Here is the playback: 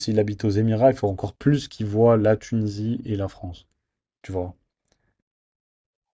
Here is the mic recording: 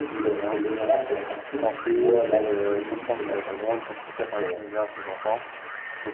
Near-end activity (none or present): present